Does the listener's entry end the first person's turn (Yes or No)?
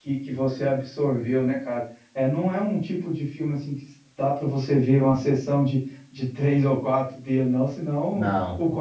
No